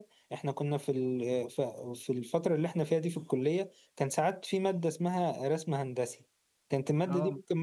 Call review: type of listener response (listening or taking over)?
listening